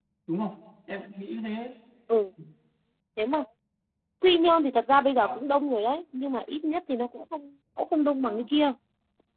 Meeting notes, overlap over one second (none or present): none